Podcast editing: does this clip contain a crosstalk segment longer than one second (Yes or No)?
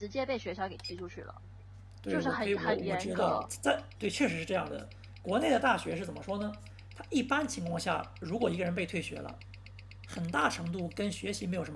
Yes